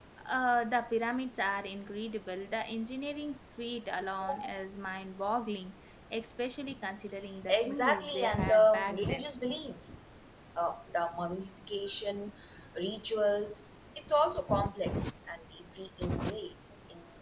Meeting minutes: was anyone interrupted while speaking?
Yes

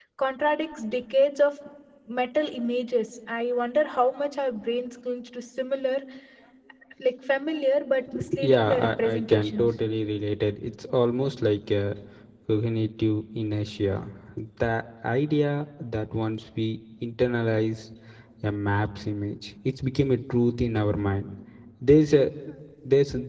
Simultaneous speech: Yes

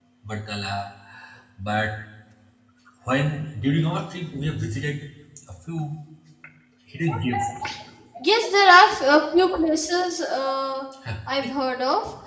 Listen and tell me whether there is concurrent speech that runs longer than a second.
No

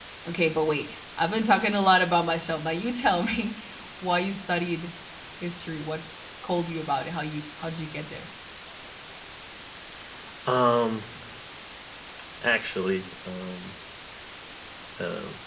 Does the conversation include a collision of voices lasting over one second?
No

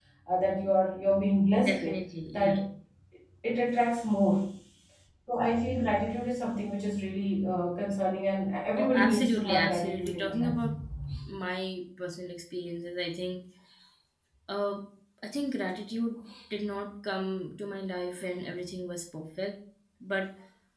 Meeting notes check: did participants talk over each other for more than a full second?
Yes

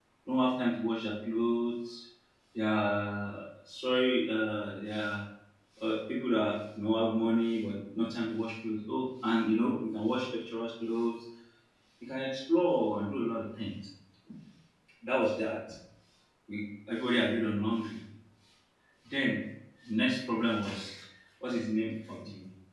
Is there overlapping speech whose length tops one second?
No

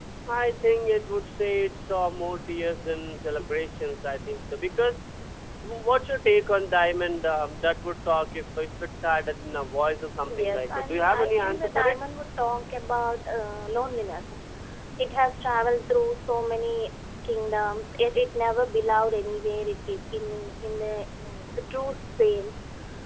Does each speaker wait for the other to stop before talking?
No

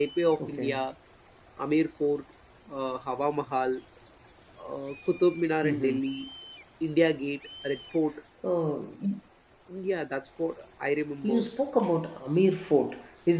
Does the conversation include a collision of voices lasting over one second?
No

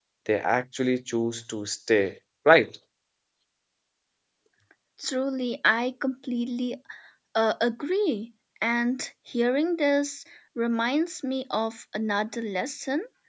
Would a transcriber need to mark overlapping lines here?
No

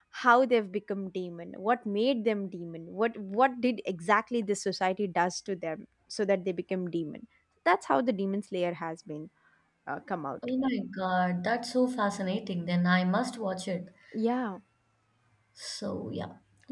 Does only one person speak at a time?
Yes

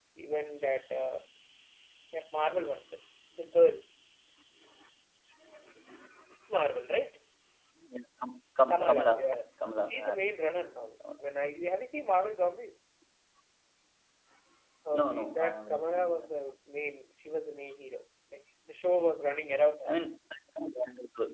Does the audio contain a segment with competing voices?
Yes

